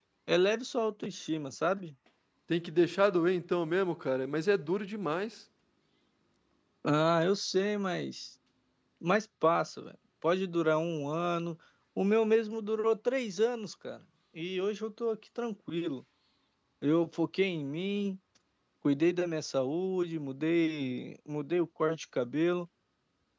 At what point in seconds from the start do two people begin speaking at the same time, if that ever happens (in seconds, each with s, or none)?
none